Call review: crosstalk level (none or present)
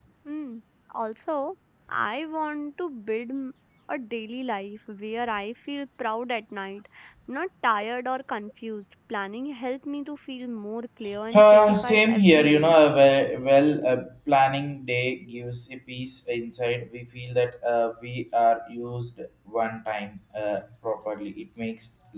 present